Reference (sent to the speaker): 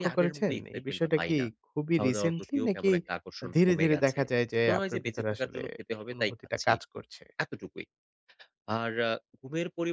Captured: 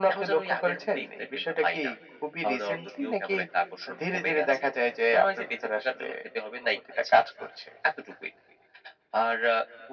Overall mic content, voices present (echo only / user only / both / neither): echo only